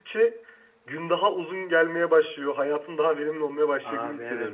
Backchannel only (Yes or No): No